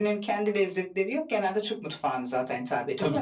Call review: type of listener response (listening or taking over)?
listening